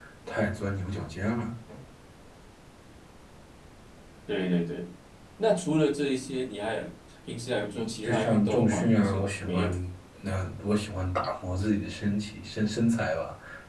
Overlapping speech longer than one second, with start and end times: 7.7-9.7

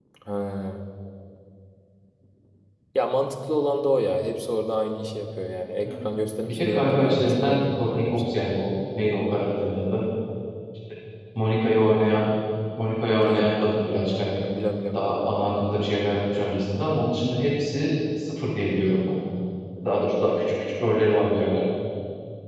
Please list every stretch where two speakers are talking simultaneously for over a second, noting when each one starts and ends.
6.5-8.4

